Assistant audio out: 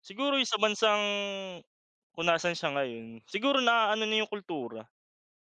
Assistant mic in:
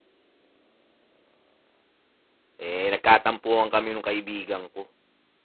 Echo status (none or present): none